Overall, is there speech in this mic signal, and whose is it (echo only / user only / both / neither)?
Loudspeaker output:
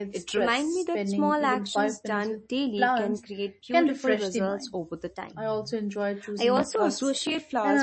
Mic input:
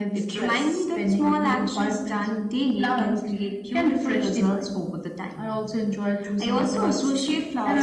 echo only